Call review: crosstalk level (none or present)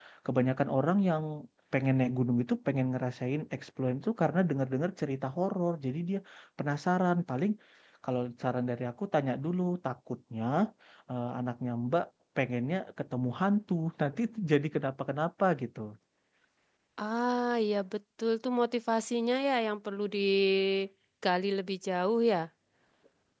none